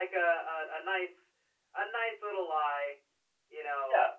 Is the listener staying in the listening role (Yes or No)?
No